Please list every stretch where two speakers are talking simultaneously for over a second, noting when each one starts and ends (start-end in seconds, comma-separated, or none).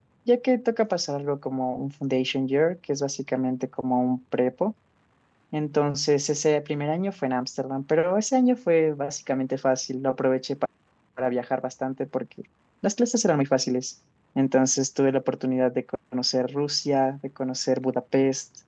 none